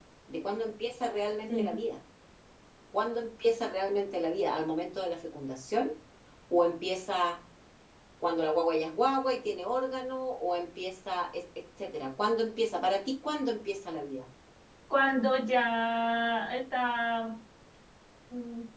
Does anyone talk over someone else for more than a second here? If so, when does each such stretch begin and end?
none

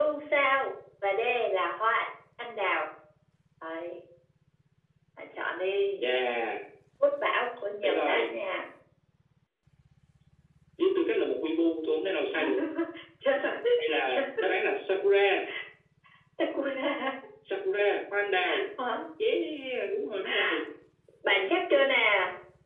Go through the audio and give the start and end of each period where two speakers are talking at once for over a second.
none

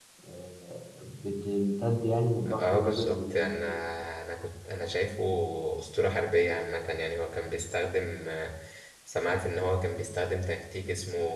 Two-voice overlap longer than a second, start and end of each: 2.5-3.7

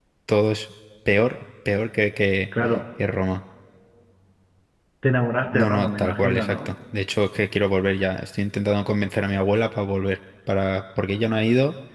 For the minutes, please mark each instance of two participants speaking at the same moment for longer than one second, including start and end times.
5.4-6.7

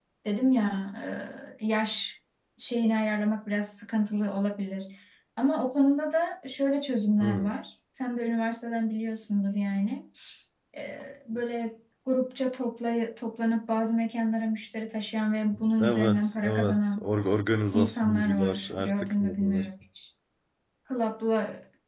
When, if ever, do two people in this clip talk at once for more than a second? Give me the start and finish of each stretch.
15.8-17.1, 17.7-19.7

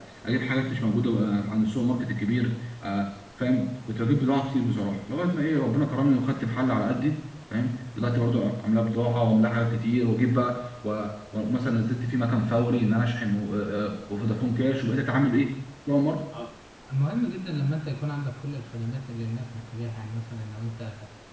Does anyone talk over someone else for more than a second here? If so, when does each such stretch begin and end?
none

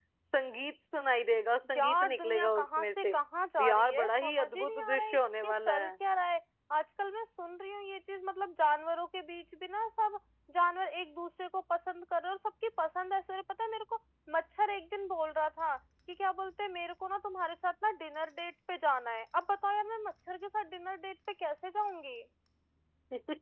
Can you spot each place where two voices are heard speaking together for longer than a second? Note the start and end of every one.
1.8-3.2, 3.6-5.9

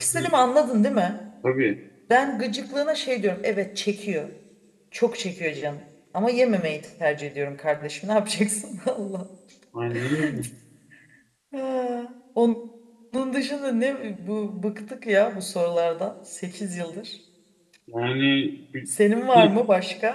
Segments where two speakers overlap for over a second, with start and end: none

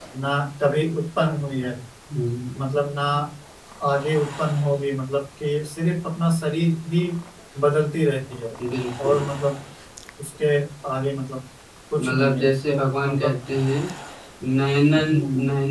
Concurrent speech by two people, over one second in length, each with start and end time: 12.0-13.3

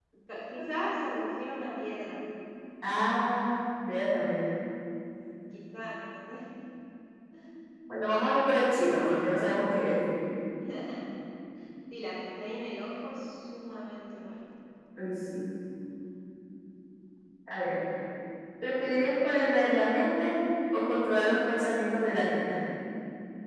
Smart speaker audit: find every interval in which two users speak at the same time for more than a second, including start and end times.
none

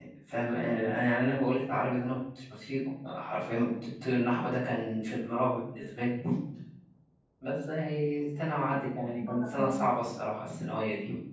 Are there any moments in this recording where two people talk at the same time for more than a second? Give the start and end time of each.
8.4-9.9

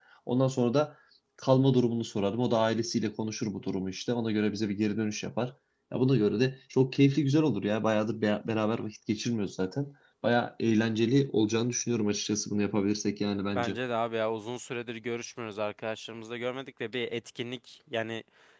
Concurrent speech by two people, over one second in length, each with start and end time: none

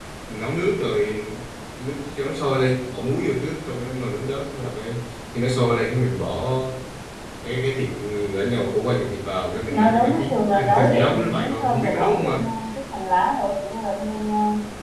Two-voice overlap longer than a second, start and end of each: 9.7-12.4

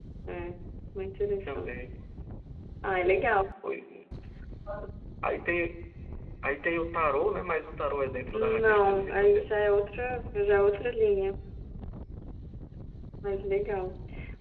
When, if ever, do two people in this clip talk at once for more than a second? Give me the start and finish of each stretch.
8.3-9.5

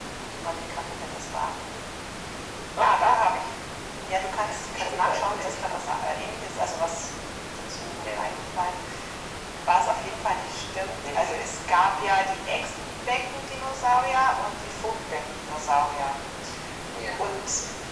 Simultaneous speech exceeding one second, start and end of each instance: 4.5-6.2

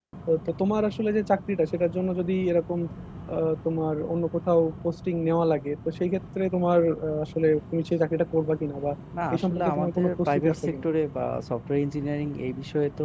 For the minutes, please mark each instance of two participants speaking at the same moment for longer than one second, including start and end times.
9.3-10.8

